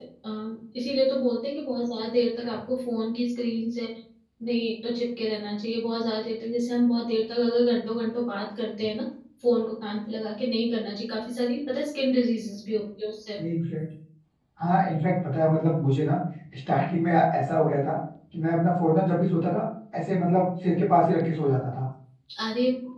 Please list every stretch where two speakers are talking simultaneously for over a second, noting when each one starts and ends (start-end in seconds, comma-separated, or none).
none